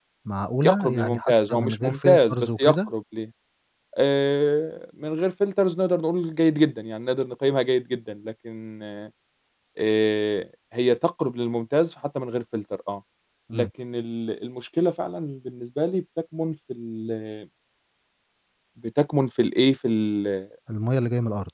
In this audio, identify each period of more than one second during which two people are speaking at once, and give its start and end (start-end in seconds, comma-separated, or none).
0.6-2.9